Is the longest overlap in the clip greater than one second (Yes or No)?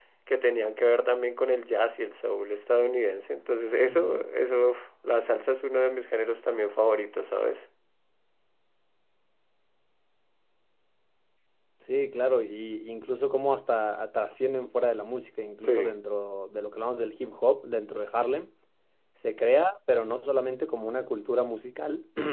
No